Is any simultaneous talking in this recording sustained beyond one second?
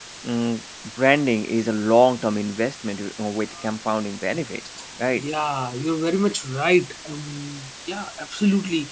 No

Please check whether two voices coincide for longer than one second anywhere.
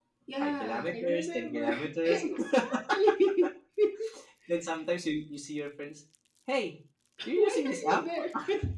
Yes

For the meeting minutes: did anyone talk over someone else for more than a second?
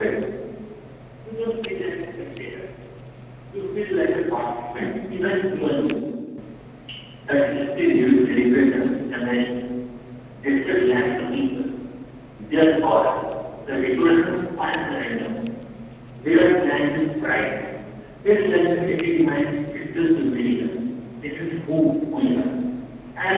No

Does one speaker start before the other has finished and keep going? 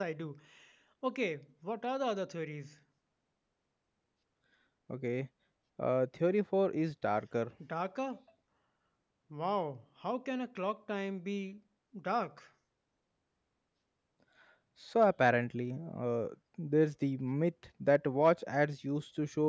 No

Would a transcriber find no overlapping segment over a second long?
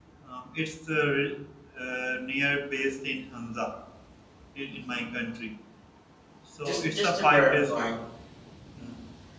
No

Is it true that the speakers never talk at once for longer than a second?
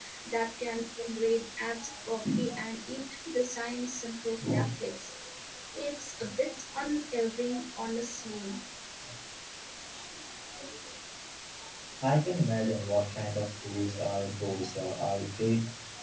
Yes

